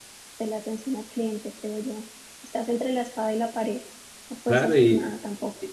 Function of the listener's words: taking over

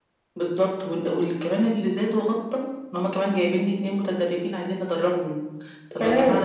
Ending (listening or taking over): listening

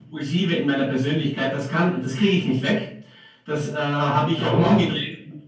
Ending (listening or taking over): listening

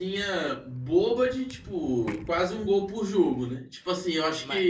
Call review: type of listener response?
taking over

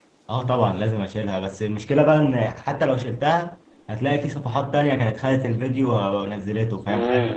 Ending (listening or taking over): taking over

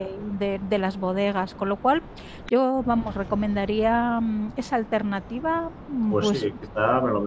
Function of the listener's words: taking over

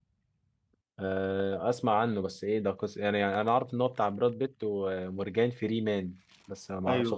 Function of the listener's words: taking over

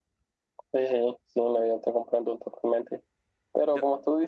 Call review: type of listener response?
listening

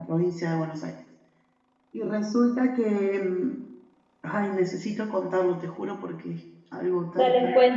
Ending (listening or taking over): taking over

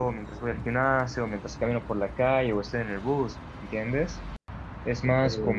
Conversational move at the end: listening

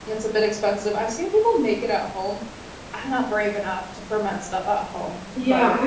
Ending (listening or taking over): taking over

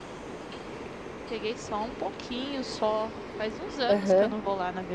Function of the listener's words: listening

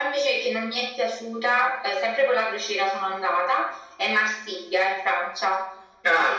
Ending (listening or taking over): taking over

